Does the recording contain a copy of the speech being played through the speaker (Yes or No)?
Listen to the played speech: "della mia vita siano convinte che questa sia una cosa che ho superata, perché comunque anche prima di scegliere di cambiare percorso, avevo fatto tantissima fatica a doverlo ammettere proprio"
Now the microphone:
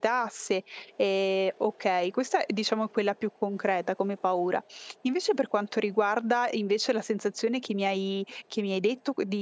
No